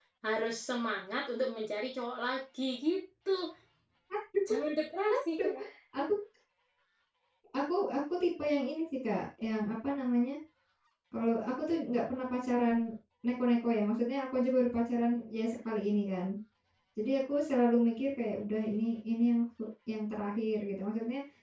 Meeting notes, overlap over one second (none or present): none